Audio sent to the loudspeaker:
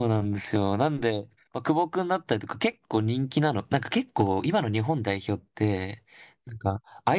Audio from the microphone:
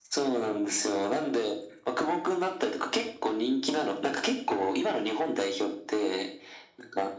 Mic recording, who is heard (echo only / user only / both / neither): echo only